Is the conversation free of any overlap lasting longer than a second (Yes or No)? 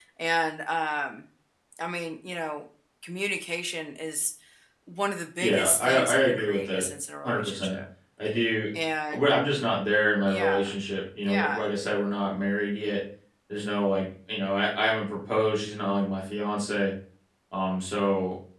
No